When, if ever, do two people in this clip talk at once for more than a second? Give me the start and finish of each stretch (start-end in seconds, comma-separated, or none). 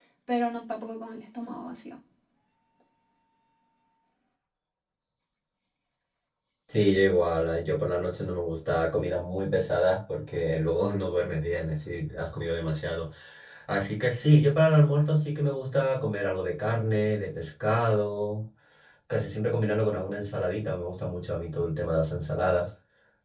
none